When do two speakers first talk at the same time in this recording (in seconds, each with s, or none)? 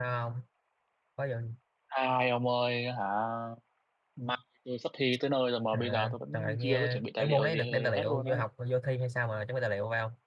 5.7 s